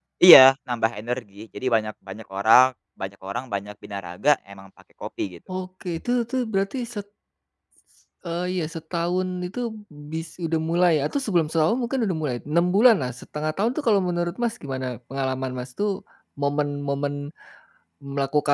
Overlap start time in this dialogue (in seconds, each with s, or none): none